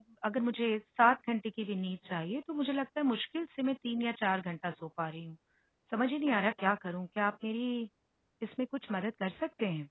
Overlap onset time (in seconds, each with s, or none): none